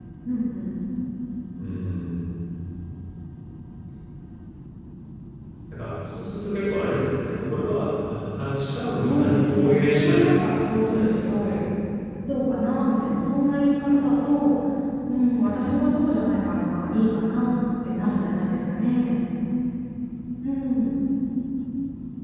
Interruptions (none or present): present